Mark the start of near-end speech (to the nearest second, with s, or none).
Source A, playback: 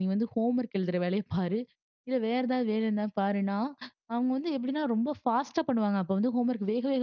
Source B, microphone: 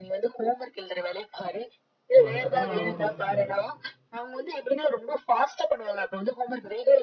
2 s